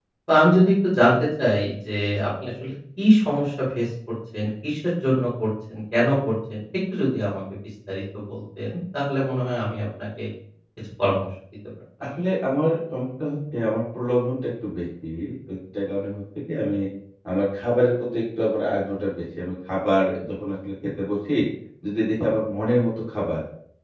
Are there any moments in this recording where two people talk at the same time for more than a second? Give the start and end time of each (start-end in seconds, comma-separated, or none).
none